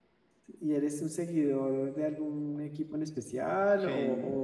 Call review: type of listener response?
taking over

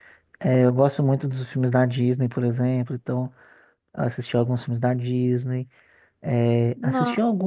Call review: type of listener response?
listening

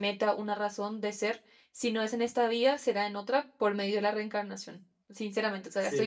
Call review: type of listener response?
listening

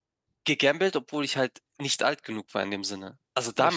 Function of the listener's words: listening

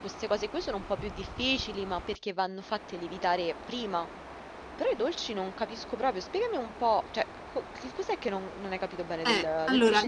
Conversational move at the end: taking over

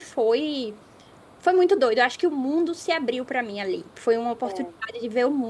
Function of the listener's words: listening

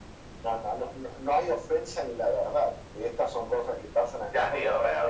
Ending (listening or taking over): taking over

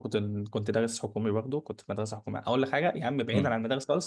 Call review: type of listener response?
listening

